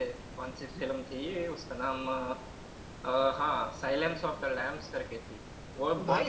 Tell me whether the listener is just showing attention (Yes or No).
No